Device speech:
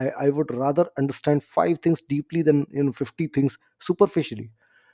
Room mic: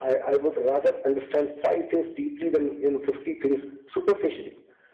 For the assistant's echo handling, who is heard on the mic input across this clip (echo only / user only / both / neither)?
echo only